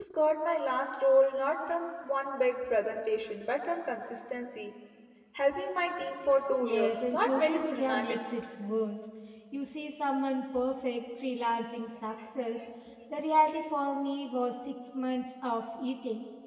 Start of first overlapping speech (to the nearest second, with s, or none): 7 s